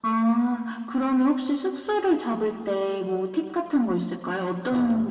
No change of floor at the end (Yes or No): No